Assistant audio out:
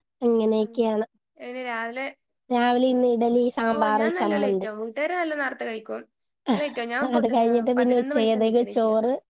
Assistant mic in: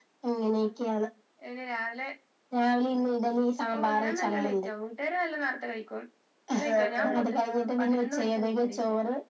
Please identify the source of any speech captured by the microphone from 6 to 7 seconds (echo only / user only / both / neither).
both